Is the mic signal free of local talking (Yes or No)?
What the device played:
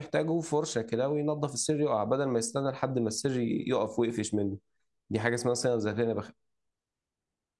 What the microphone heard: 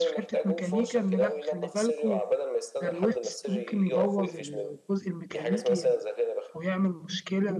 No